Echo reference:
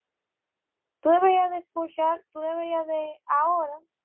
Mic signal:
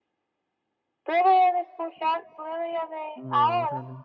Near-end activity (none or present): present